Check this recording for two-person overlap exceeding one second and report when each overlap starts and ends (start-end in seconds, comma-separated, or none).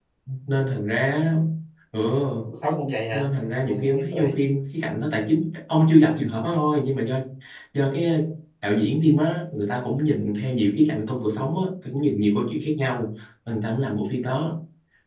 3.1-4.3